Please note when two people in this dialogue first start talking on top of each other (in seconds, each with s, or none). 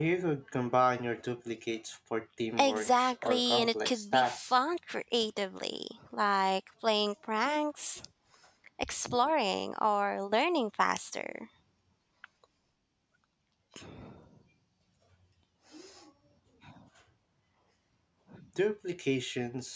2.6 s